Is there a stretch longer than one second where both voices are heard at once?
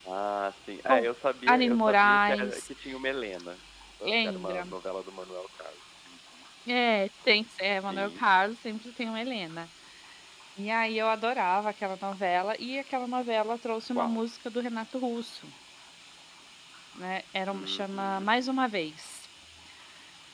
Yes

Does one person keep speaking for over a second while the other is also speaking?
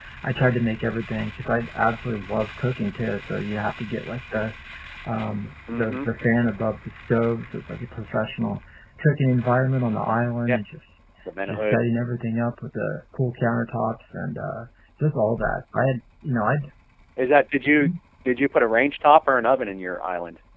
No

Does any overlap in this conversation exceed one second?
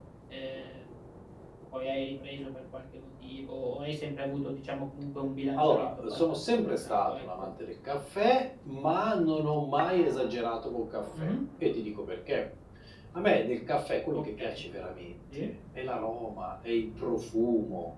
Yes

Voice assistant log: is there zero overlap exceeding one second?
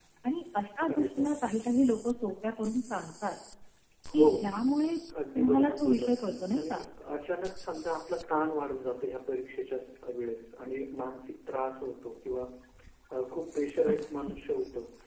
No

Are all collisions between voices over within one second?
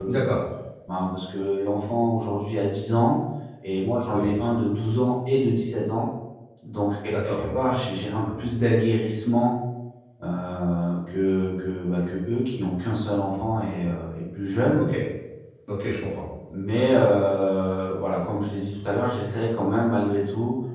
Yes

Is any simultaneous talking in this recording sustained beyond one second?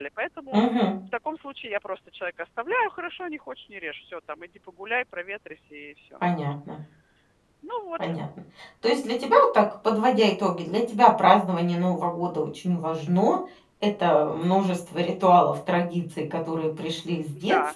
No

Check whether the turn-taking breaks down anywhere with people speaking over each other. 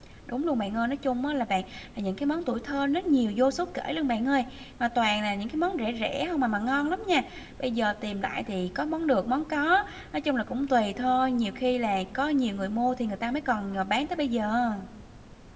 No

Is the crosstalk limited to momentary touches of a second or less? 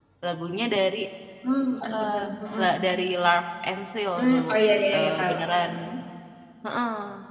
Yes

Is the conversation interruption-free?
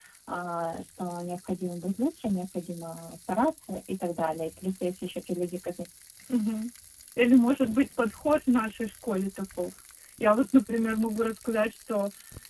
Yes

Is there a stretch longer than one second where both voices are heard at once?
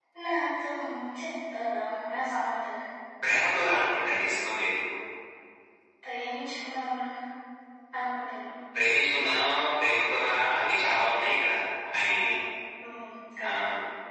No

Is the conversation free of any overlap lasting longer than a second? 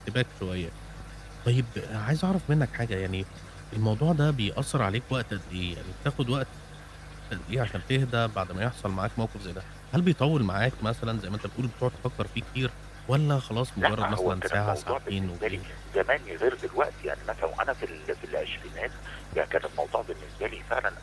No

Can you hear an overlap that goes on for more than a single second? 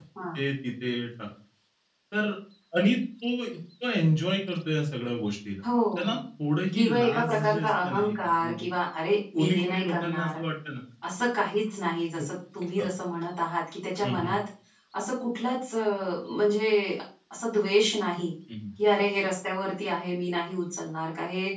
Yes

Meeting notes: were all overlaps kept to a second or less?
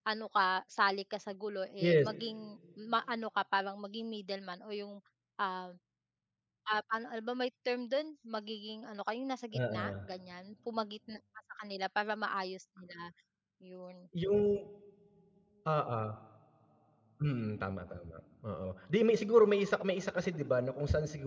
Yes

